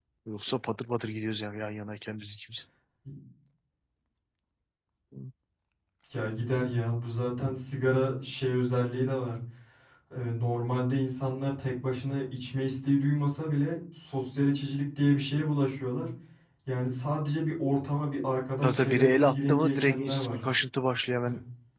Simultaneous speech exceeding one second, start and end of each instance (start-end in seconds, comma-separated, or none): 18.6-20.4